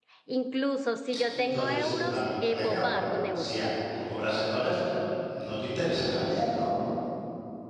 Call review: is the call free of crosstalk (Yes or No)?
No